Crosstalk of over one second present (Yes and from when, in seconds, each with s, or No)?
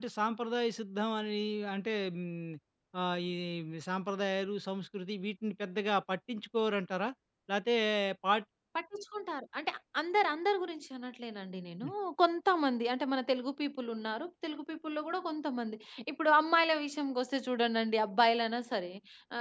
No